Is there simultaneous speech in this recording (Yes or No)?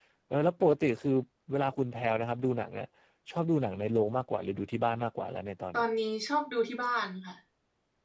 No